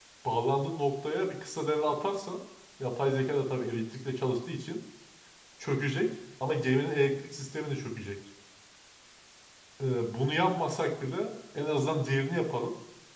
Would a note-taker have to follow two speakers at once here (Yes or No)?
No